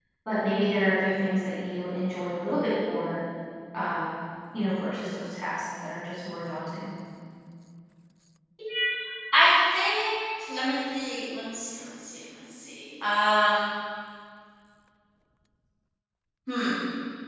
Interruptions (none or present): none